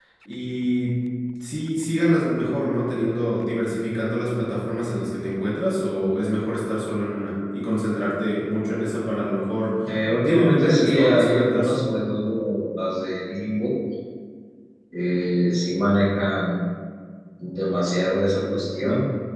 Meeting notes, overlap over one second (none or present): present